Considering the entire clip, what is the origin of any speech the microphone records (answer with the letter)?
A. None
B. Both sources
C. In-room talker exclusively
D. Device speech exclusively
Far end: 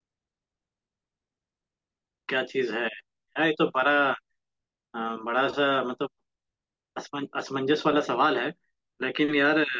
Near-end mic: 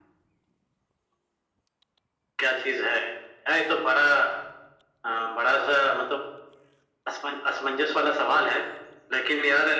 D